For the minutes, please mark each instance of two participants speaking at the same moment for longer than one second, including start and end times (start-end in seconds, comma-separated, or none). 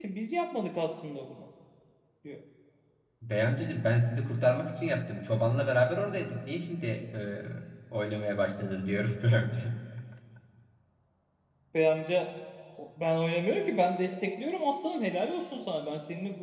none